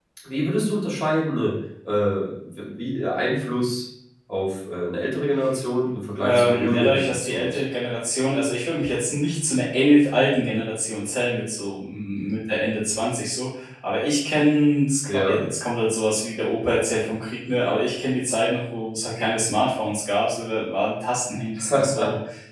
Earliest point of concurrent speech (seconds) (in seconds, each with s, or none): 6.2 s